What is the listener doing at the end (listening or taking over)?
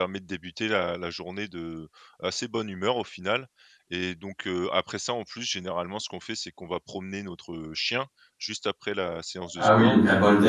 taking over